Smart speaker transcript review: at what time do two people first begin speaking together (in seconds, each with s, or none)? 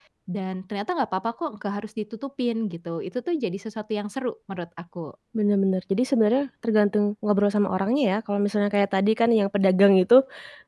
none